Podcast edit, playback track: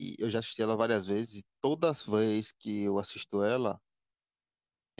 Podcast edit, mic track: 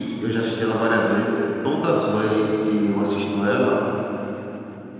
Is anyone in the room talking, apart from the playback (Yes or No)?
No